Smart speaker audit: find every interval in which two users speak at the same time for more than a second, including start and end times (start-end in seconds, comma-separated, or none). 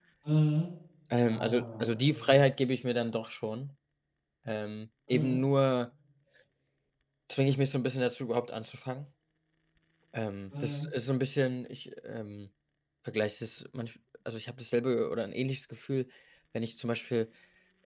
1.2-2.5